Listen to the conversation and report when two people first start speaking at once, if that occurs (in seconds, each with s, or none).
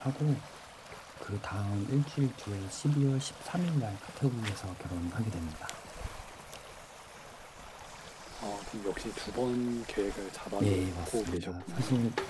10.6 s